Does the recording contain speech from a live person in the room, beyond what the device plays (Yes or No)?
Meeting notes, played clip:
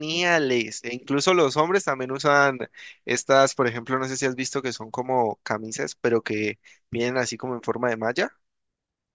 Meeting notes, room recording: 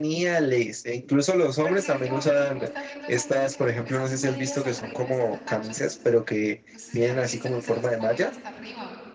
Yes